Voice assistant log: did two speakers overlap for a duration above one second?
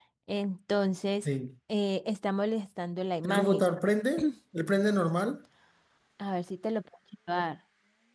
No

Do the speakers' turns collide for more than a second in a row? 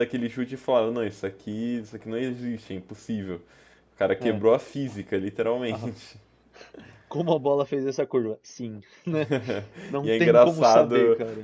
Yes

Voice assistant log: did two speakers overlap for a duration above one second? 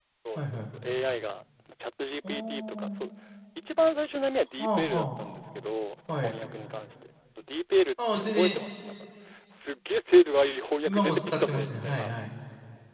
Yes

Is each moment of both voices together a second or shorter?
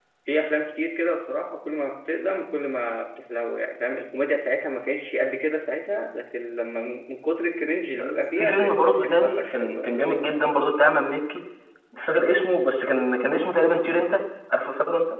No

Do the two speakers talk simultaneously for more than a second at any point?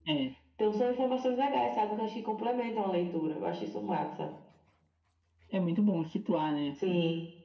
No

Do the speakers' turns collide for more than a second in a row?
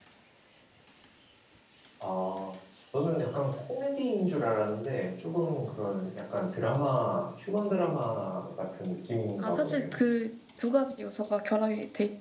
No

